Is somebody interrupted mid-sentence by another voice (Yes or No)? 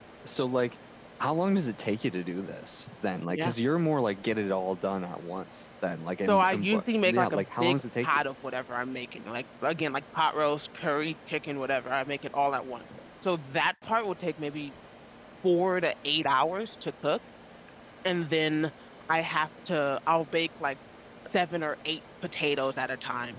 Yes